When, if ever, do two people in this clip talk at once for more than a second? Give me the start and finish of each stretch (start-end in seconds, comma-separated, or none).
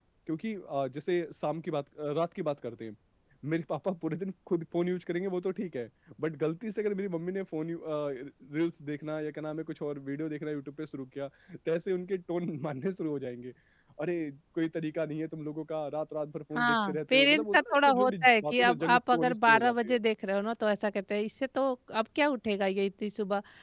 16.6-20.0